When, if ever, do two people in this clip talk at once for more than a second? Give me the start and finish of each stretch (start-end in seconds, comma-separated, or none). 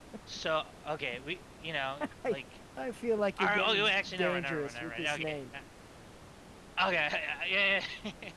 3.4-5.4